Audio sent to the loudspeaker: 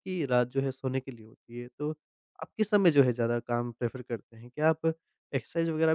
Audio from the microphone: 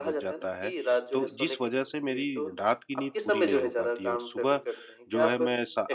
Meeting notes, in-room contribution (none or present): present